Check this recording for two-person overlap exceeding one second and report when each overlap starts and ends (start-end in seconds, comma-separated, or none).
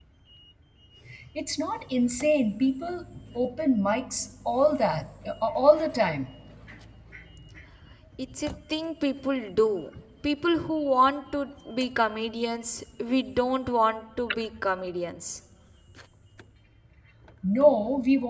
none